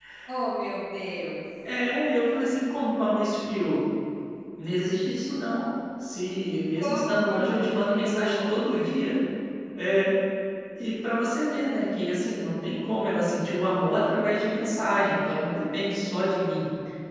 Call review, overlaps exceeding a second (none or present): present